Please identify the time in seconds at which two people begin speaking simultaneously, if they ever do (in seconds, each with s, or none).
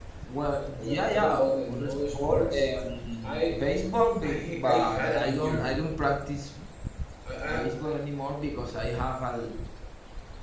0.8 s